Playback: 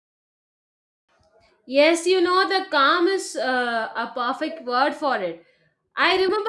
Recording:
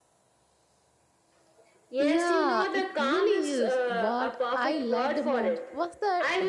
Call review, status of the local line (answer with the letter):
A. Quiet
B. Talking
B